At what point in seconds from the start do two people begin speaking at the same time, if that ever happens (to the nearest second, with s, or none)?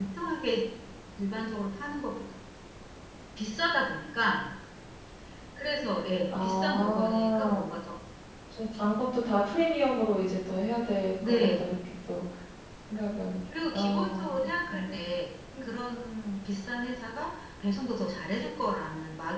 6 s